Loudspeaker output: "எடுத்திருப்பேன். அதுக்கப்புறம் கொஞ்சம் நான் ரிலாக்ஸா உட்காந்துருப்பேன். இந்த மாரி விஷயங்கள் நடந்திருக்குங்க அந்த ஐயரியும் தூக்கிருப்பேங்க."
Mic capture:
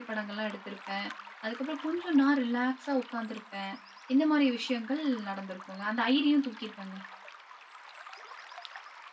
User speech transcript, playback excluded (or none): none